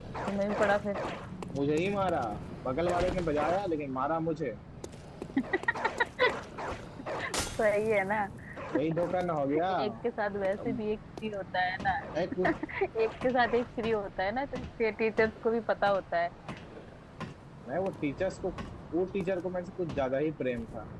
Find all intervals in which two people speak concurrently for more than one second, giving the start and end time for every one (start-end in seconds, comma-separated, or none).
none